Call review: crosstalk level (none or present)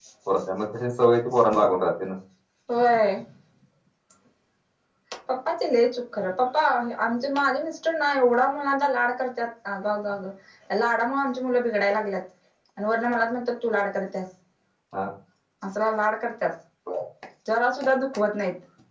none